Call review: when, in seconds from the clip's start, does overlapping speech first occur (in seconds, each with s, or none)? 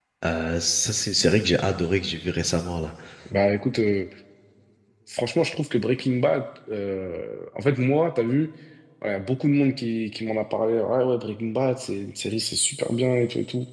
none